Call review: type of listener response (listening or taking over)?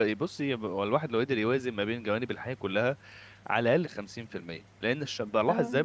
listening